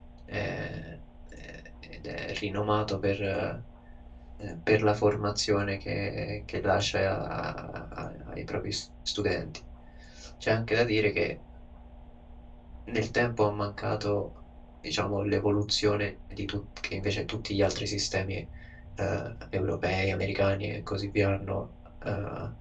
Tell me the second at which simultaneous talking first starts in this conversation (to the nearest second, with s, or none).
none